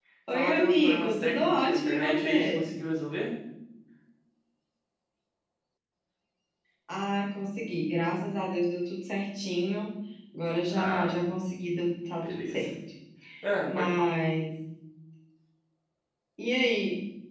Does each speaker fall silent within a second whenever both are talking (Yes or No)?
No